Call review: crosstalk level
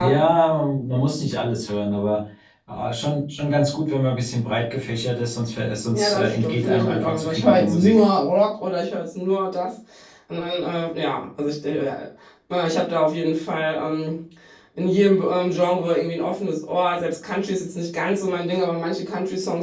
present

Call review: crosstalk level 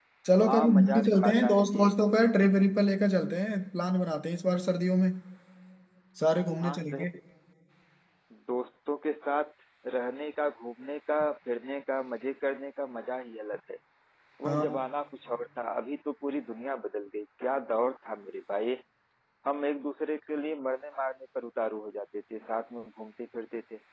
present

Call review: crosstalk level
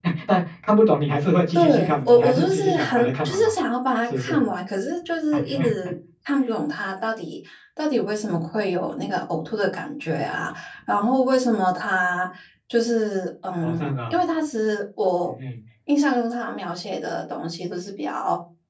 present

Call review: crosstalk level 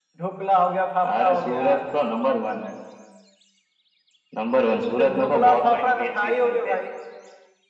present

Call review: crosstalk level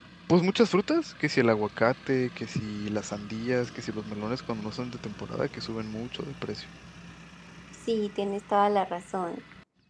none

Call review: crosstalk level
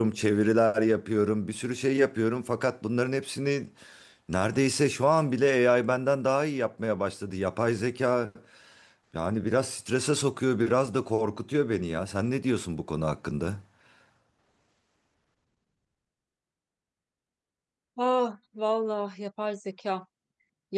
none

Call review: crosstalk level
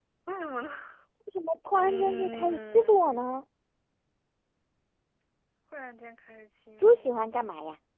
present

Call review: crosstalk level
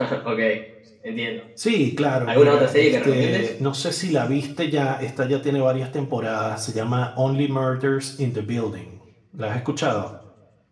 present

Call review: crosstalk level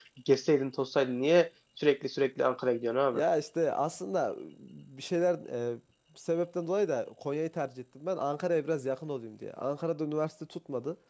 none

